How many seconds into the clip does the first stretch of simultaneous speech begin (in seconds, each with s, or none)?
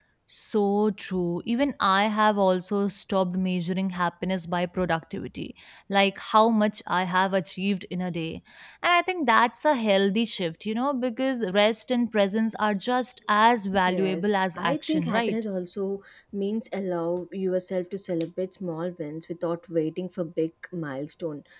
13.7 s